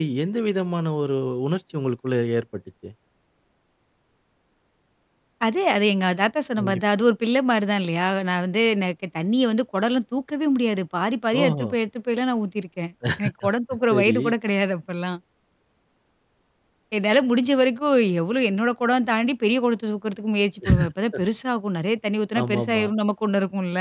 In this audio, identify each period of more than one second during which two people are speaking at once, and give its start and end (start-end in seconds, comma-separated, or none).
none